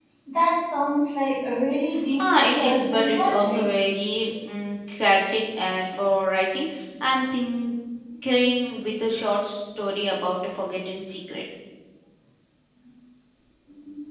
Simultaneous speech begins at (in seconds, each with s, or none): 2.2 s